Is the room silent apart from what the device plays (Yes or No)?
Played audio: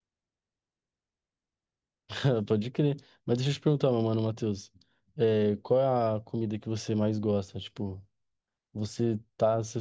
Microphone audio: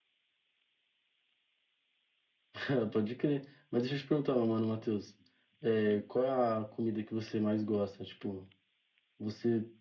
Yes